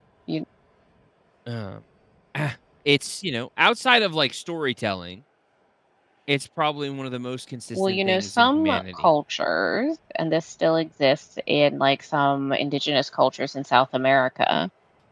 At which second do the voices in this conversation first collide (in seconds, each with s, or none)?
7.7 s